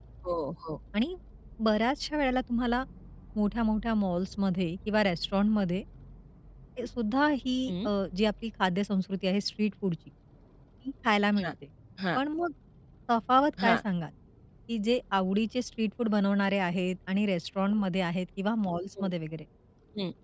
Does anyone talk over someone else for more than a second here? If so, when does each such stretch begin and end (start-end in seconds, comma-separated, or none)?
none